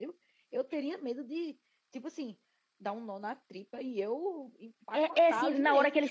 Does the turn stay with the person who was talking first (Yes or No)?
No